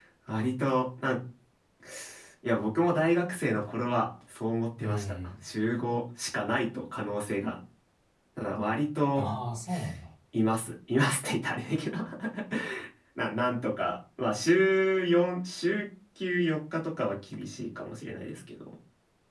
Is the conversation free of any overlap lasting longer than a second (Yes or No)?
Yes